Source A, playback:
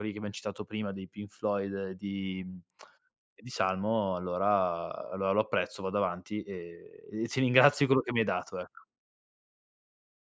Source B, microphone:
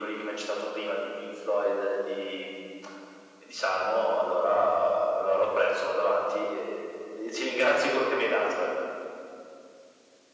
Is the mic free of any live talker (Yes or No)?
Yes